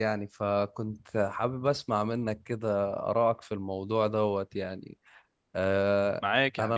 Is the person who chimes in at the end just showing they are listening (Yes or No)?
No